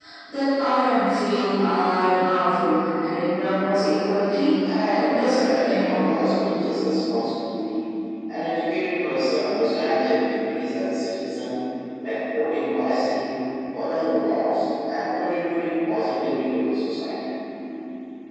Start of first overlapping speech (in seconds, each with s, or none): 4.8 s